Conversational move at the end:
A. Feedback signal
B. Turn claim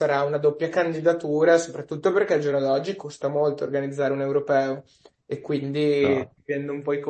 A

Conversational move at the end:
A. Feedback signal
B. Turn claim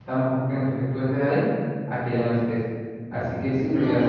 B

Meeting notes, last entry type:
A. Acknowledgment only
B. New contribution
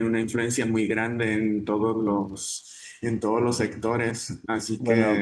B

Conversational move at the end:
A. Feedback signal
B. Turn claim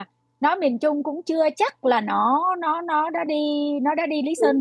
B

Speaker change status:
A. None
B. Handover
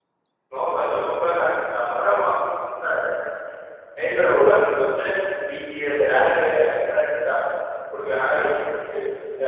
A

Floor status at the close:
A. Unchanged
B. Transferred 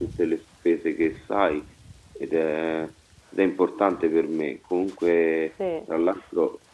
A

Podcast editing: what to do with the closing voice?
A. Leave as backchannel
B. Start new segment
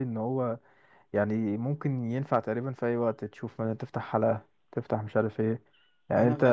A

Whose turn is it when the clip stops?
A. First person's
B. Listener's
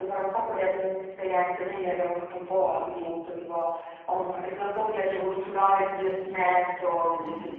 A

